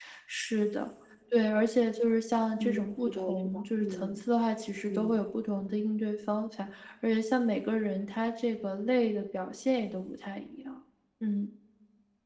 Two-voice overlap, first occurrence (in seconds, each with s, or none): 2.6 s